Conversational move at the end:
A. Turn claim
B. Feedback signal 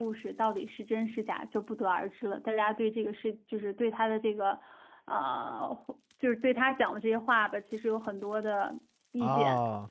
A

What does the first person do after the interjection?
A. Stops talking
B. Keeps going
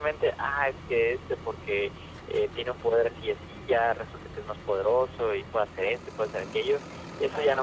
A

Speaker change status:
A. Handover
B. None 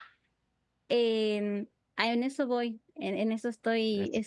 B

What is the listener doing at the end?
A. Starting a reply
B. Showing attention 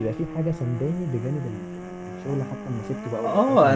A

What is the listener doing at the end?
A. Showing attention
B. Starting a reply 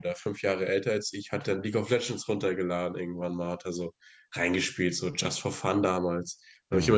A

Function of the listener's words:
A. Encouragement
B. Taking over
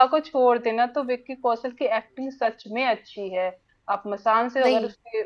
A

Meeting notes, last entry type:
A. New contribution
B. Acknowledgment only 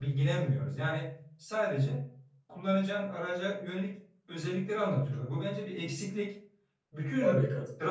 B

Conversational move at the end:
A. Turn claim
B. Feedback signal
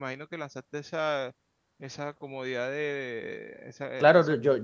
A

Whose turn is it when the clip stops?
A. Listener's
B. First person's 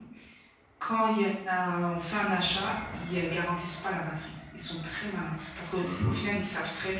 B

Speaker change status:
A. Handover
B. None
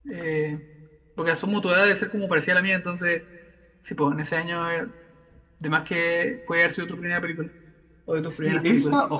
A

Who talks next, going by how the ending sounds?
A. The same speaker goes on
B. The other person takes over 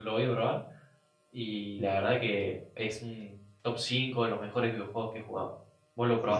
B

